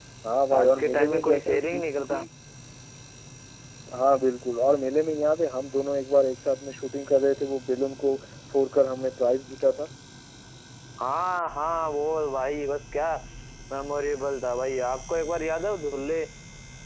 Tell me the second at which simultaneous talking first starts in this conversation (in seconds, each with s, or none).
0.5 s